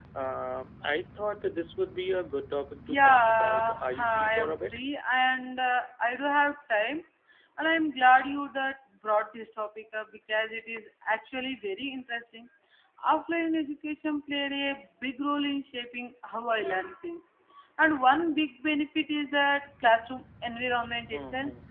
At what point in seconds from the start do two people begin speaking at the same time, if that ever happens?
2.9 s

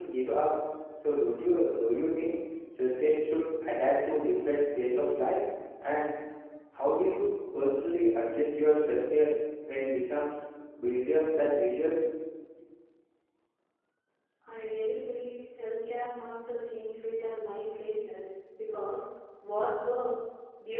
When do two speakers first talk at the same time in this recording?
none

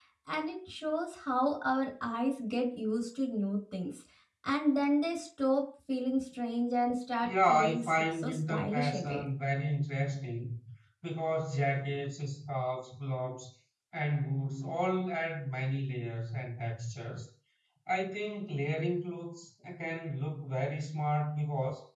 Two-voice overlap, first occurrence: 7.2 s

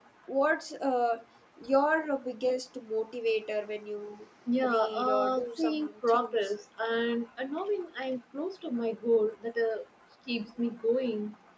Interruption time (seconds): 4.5 s

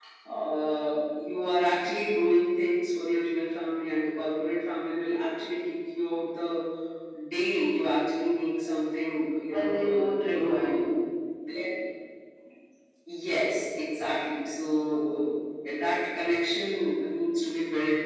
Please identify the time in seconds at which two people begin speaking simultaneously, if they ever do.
9.5 s

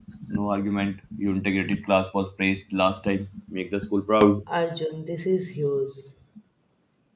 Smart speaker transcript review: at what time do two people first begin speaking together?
none

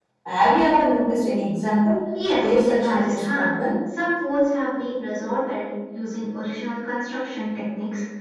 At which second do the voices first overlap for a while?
2.1 s

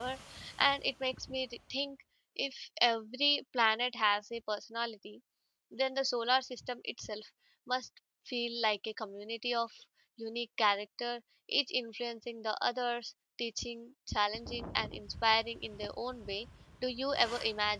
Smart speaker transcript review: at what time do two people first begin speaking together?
none

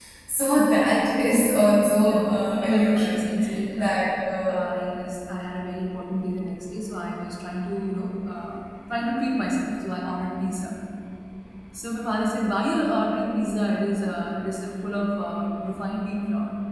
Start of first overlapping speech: 2.0 s

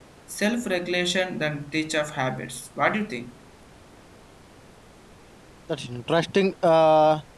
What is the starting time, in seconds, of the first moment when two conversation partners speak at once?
none

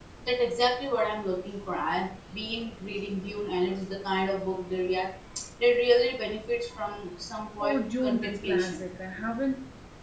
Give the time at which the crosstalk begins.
7.6 s

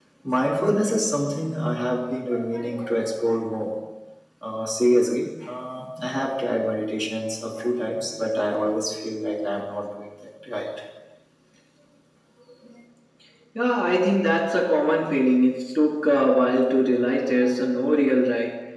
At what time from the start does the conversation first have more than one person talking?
none

